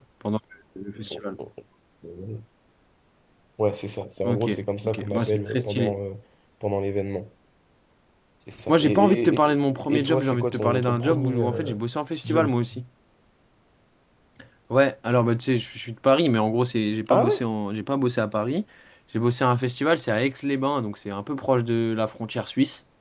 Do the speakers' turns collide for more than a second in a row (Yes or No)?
Yes